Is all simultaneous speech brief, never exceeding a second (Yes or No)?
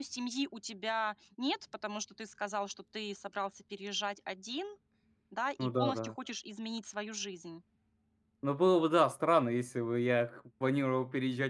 Yes